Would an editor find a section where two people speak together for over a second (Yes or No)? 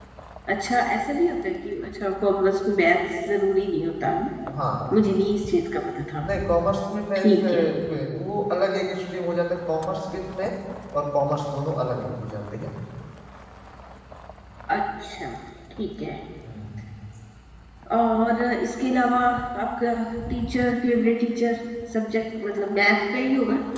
No